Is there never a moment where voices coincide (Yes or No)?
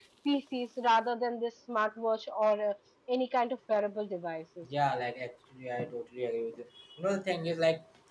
Yes